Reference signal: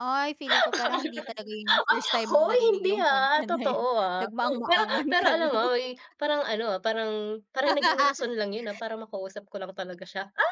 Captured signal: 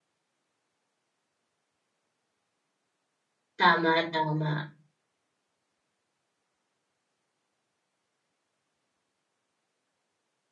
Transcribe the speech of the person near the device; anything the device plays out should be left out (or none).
Tama, tama.